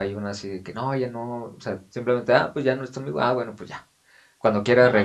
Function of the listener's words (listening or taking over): listening